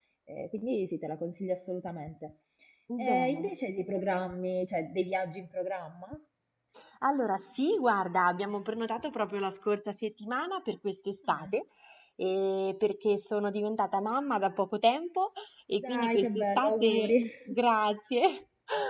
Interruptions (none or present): present